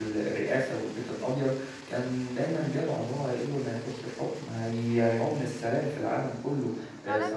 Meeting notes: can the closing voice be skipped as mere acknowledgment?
No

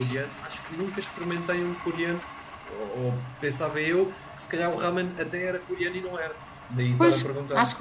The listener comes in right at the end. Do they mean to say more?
Yes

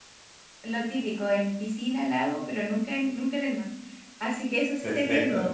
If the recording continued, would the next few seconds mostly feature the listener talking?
No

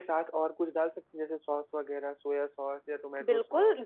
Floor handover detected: Yes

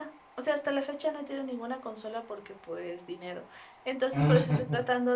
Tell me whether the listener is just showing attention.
Yes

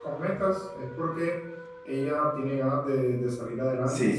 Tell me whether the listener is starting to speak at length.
Yes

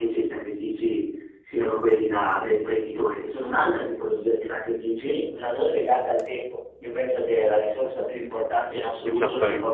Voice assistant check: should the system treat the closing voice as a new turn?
No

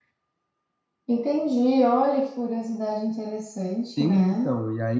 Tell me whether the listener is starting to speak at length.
Yes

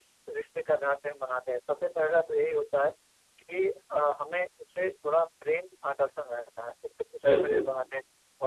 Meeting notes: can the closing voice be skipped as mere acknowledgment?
Yes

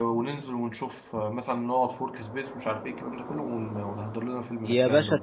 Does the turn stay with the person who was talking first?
No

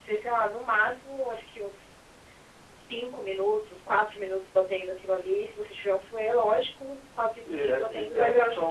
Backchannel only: No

